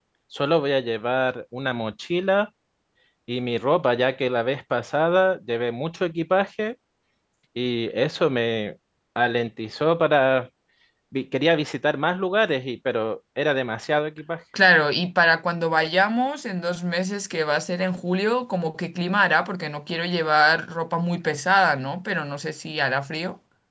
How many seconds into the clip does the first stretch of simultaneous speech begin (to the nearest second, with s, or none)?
none